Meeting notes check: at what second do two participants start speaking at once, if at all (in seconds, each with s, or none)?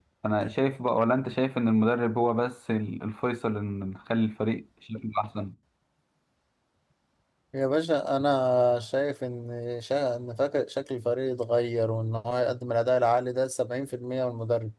none